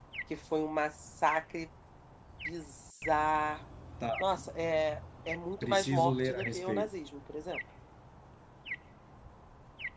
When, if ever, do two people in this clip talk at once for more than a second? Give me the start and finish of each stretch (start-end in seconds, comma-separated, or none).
5.6-6.9